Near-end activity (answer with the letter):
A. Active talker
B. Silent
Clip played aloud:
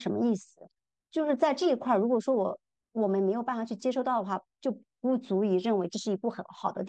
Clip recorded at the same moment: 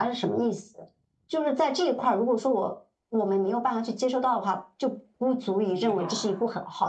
A